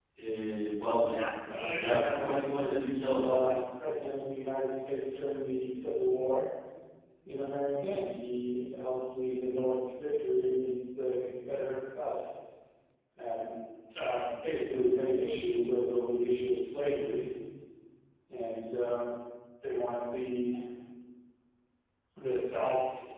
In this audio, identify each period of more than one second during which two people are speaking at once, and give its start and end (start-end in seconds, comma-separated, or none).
1.7-3.6